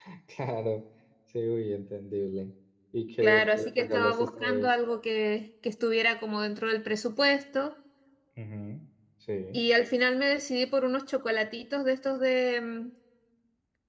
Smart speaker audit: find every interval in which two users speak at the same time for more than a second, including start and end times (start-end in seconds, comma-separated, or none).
3.2-4.7